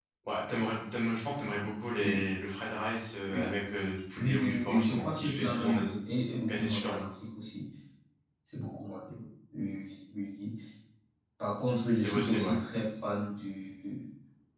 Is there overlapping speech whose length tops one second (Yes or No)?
Yes